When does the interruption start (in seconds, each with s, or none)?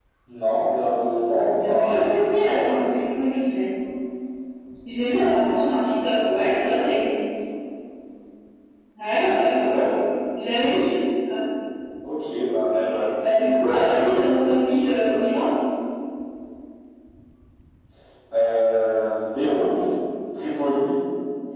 1.4 s